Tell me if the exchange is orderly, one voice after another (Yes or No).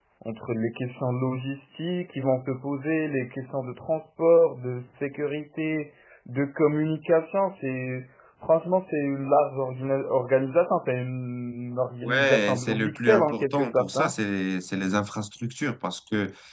No